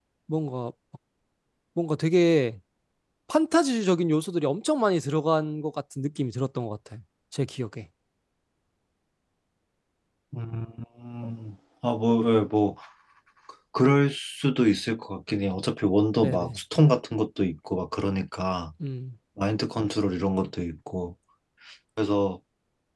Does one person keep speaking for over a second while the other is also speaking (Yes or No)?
No